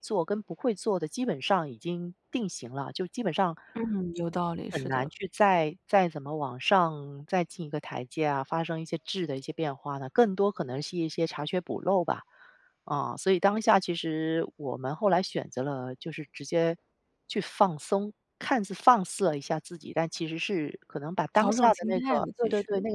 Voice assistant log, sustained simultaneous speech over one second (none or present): present